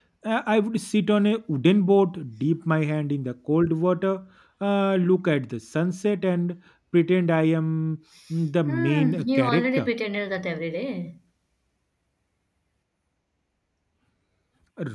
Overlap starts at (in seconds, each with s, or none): 8.7 s